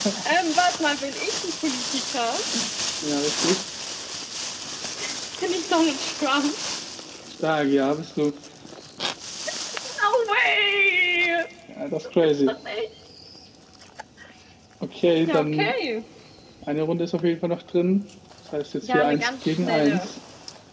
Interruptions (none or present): present